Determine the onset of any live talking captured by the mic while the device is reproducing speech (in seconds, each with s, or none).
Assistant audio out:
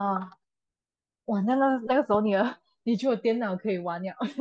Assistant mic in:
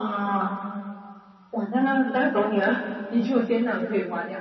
none